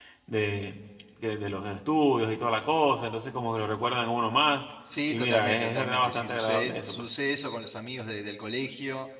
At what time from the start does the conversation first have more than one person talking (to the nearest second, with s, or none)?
5 s